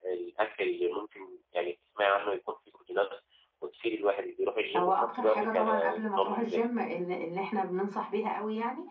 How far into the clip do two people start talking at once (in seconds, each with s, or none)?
4.7 s